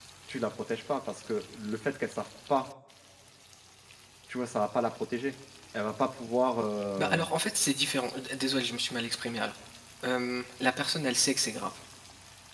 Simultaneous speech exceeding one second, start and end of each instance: none

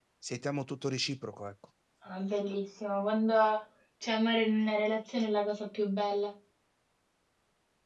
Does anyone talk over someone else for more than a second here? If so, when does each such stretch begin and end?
none

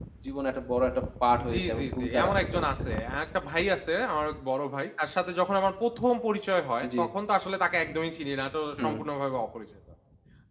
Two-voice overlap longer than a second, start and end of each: 1.5-2.8

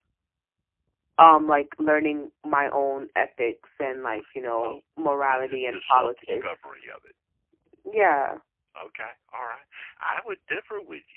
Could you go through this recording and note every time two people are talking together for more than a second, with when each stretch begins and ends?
5.3-6.8

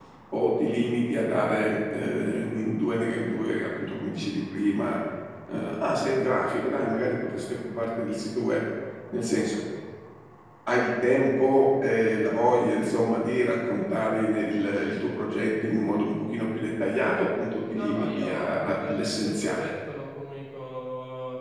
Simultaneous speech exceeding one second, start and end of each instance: 17.7-19.7

